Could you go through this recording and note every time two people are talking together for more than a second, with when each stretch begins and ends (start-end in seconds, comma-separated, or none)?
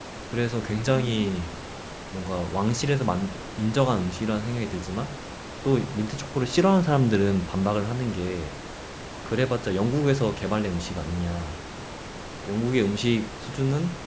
none